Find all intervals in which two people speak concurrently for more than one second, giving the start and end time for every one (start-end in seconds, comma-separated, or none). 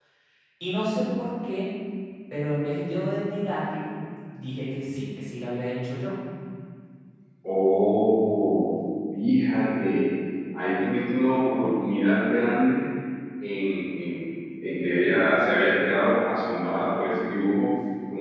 none